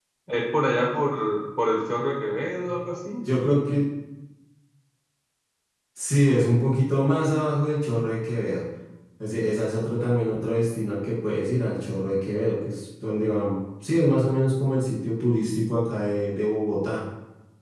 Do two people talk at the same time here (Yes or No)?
No